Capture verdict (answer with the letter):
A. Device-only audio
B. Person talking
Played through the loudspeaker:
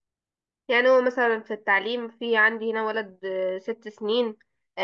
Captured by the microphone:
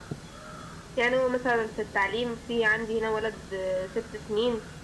A